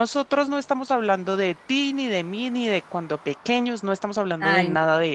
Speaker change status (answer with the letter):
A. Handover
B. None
B